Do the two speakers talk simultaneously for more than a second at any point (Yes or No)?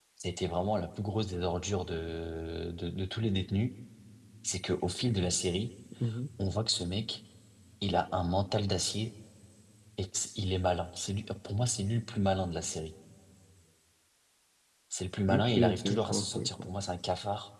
Yes